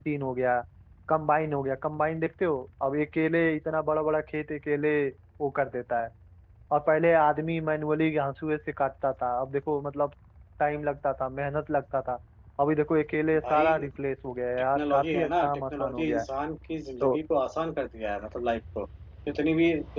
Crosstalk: present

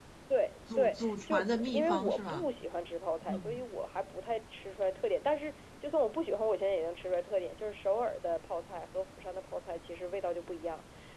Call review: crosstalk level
present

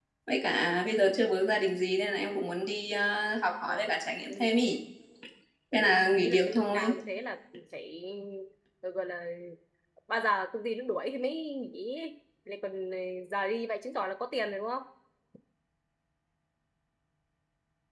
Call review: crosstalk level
present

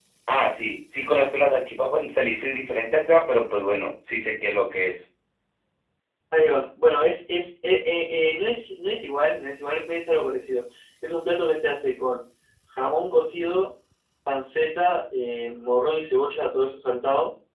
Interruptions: none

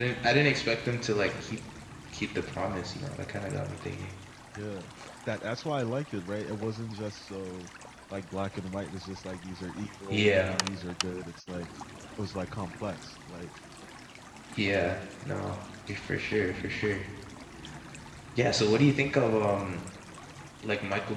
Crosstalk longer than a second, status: none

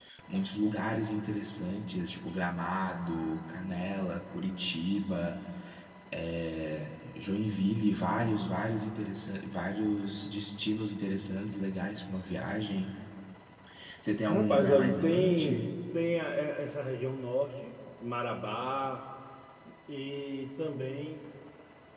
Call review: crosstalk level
present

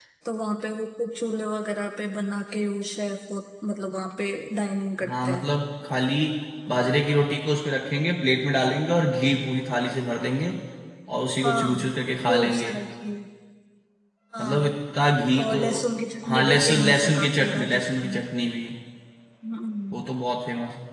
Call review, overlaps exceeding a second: present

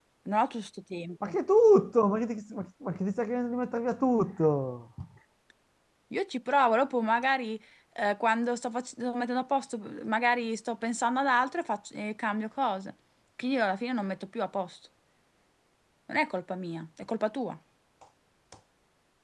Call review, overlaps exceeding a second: none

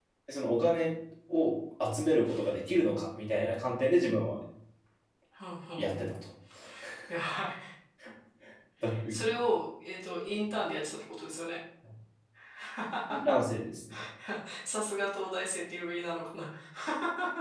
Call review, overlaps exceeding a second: none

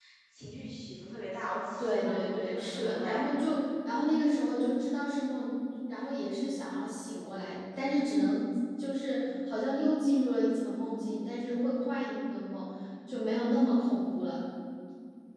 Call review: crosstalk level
present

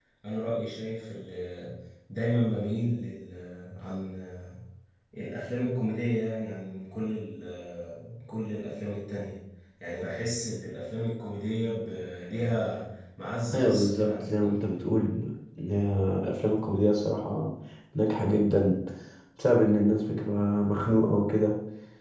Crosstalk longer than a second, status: present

